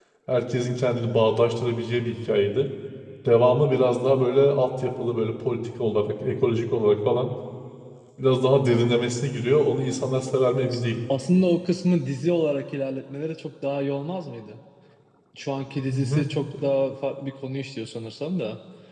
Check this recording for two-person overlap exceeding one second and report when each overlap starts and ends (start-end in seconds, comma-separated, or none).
none